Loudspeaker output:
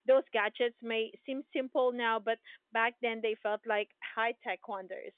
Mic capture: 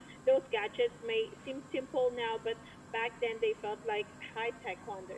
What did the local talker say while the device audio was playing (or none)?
none